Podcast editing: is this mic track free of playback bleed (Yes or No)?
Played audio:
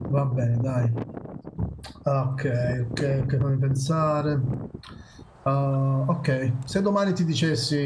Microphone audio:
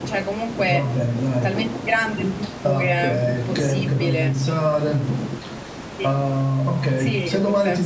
No